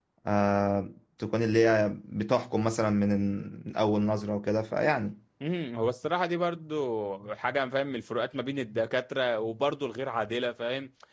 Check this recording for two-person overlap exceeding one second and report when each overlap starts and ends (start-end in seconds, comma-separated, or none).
none